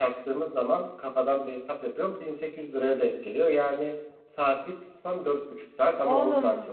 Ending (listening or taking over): taking over